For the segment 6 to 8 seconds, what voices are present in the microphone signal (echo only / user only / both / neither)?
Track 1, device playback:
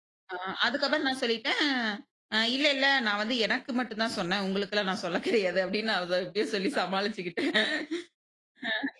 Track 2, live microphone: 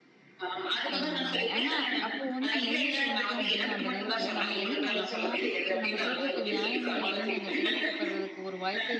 both